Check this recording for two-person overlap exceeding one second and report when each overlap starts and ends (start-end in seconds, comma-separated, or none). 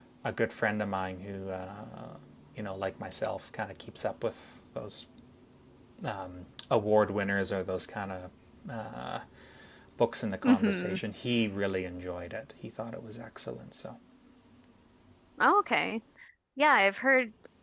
none